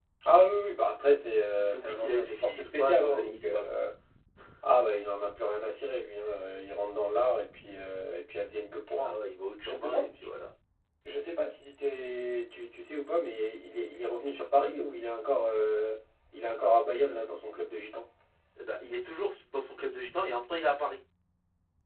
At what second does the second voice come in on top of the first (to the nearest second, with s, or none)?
2 s